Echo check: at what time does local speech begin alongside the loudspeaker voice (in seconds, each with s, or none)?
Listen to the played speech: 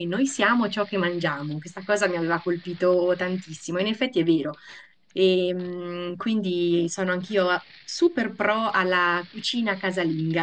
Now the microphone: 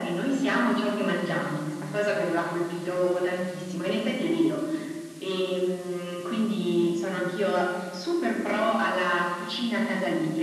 none